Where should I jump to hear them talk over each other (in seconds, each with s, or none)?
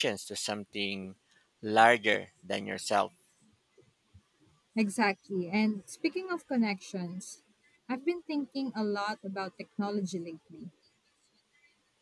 none